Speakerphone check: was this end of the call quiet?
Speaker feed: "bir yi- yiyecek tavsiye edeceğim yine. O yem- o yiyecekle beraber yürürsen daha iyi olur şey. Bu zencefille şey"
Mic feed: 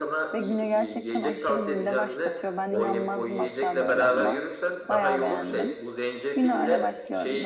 No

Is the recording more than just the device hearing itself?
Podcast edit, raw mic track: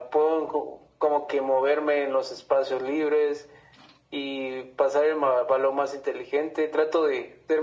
No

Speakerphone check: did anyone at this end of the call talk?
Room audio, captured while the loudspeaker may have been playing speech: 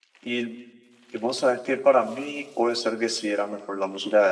Yes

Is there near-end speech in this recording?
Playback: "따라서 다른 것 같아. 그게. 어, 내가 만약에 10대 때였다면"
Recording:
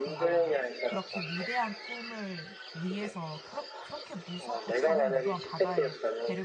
Yes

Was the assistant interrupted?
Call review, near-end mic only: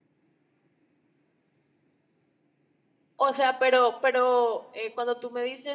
Yes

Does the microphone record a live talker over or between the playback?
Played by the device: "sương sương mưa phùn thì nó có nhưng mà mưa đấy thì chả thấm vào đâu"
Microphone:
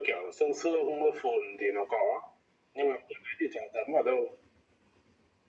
No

